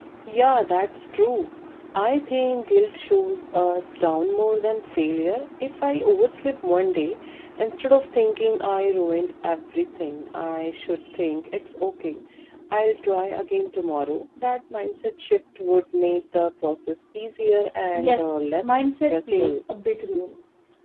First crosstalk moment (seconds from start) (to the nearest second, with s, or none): 18 s